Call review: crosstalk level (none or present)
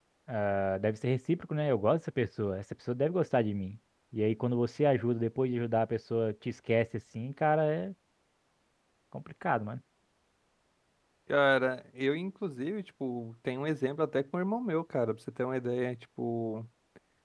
none